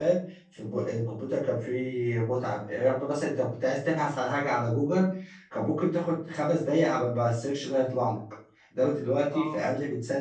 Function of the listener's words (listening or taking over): listening